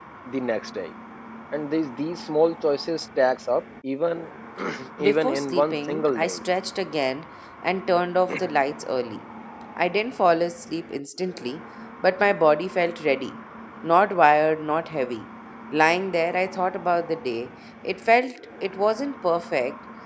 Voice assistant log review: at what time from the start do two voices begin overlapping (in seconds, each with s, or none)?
5.0 s